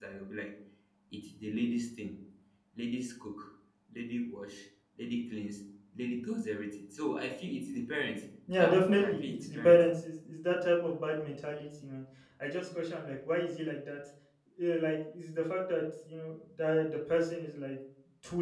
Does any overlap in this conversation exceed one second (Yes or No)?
Yes